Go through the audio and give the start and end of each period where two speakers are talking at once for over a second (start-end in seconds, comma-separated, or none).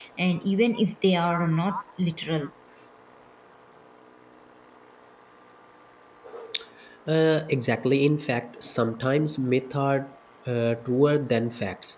none